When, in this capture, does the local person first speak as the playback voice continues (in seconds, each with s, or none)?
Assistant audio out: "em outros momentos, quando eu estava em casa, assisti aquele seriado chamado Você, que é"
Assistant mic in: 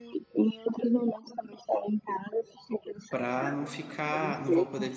3.1 s